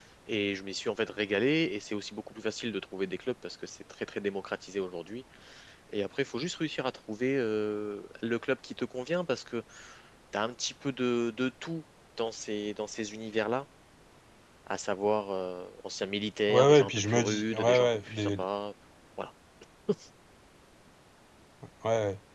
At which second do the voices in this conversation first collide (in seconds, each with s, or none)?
16.5 s